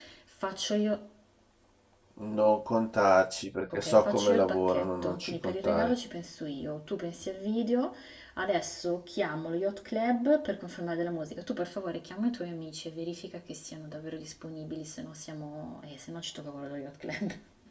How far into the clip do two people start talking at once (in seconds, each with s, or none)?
3.7 s